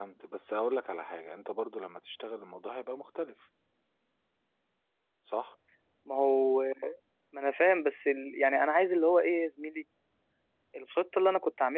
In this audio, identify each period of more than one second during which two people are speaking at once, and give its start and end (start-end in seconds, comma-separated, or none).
none